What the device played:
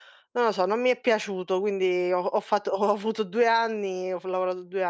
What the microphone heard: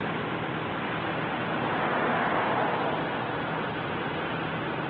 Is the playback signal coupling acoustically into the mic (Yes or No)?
No